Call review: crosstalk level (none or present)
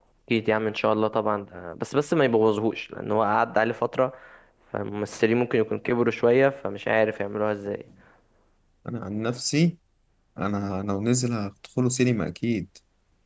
none